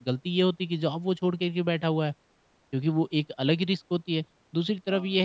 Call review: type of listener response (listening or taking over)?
listening